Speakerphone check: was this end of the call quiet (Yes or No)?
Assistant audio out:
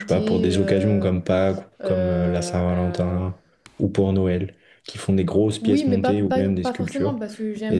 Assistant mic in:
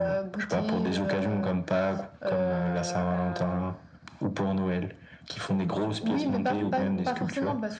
No